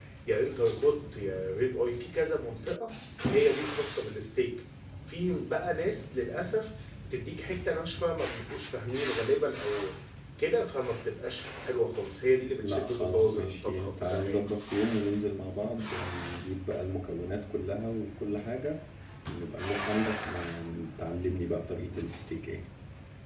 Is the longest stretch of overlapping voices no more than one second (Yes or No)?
No